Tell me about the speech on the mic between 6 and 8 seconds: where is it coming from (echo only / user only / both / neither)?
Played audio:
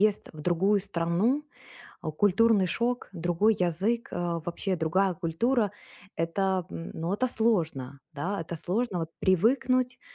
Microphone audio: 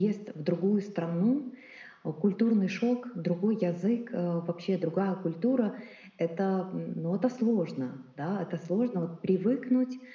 echo only